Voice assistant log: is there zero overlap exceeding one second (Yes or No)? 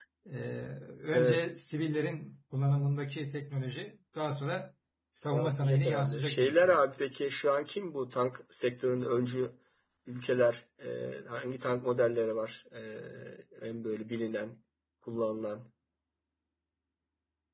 No